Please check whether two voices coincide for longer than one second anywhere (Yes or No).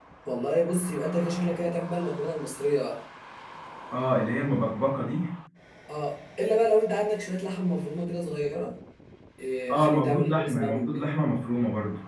Yes